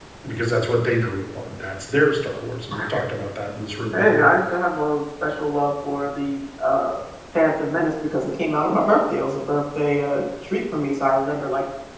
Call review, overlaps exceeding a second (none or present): none